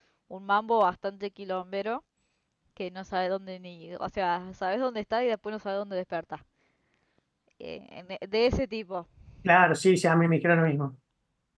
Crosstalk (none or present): none